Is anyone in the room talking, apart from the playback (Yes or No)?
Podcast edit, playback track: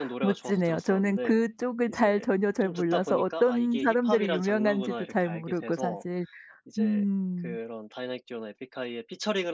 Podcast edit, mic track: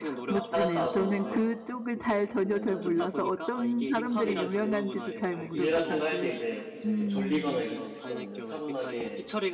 Yes